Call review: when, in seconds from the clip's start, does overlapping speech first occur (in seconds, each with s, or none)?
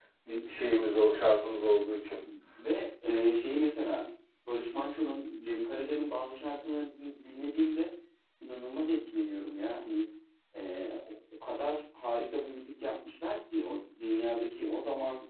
none